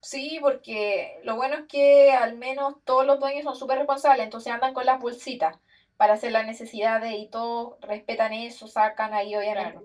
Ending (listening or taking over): listening